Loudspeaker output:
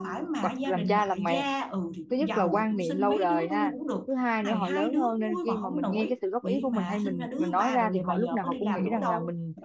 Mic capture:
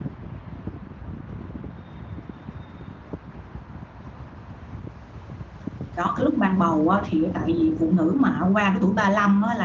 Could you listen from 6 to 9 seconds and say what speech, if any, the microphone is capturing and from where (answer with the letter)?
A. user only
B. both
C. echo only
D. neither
A